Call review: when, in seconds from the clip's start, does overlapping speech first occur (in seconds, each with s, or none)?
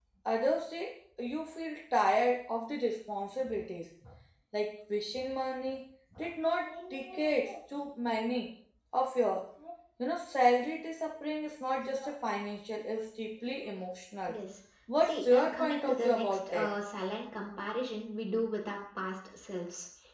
15.1 s